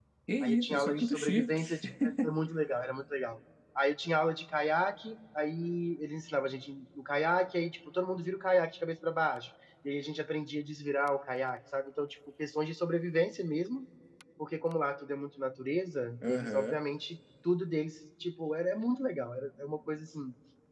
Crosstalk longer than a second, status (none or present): present